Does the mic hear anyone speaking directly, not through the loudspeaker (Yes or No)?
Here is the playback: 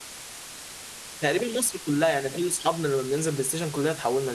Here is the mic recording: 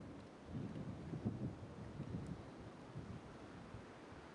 No